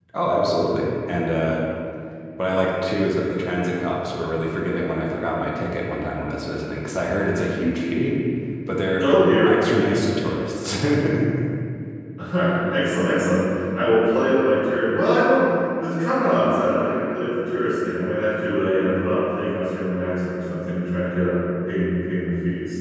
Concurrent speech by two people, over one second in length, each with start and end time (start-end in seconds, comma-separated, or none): none